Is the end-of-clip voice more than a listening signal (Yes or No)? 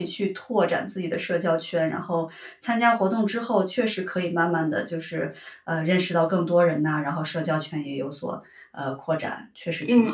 Yes